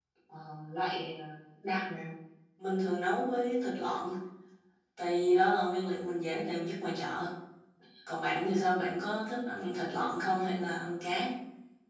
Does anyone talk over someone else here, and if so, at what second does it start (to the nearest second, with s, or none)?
none